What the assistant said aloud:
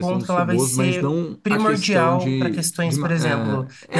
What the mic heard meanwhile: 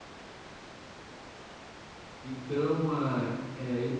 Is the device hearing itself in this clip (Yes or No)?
No